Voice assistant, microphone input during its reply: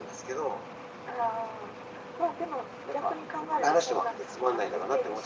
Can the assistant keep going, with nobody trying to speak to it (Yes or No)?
Yes